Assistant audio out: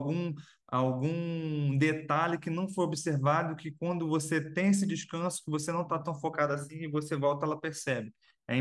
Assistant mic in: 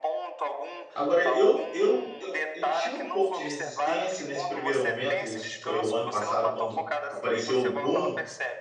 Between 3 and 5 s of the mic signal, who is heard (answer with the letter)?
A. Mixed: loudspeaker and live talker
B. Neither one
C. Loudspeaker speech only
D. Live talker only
A